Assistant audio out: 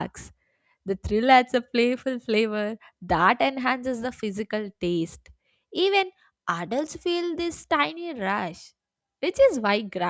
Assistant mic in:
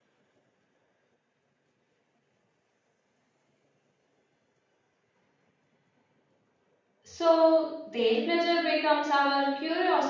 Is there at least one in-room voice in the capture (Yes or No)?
Yes